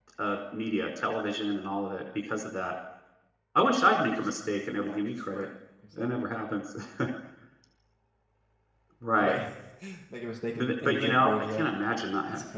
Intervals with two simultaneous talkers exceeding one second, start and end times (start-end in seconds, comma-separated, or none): 3.9-5.5, 10.5-11.8